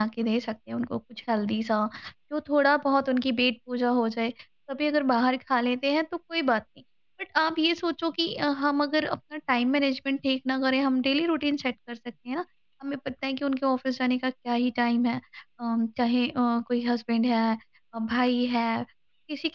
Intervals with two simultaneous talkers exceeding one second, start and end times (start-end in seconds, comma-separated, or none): none